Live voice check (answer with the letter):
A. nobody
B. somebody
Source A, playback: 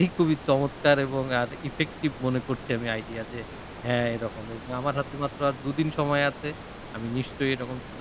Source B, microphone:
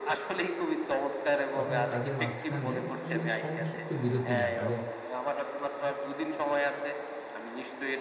B